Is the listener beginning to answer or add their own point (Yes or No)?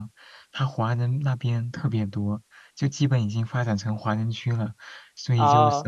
No